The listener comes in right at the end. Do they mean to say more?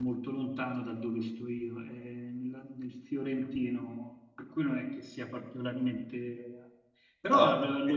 No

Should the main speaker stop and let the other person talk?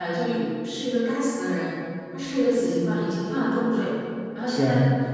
No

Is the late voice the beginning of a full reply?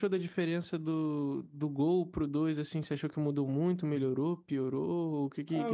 Yes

